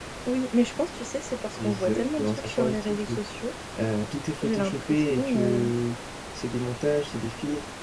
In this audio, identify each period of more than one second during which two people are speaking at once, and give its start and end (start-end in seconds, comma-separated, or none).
1.6-3.2, 4.4-5.7